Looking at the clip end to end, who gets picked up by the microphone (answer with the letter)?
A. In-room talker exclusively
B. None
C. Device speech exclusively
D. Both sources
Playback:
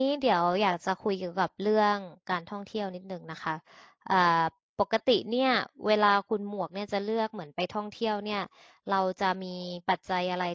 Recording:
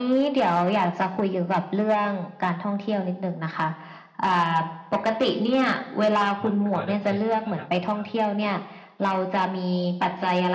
D